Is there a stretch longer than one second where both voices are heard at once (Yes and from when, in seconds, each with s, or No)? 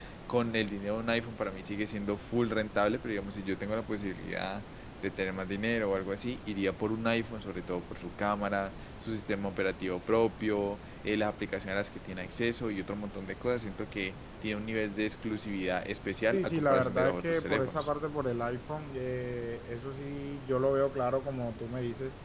Yes, from 16.3 s